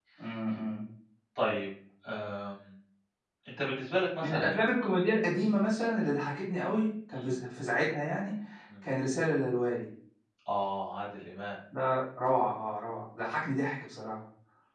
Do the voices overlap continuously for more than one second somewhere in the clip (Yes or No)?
No